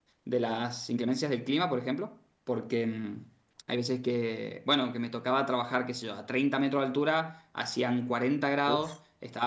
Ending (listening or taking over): listening